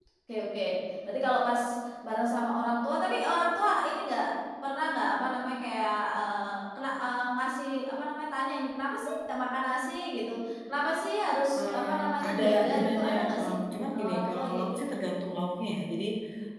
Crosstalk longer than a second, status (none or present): present